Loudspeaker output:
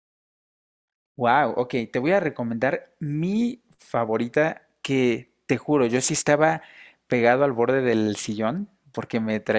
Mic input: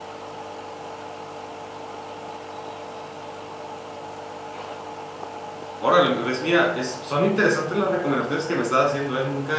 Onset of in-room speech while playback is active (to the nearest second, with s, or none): 6 s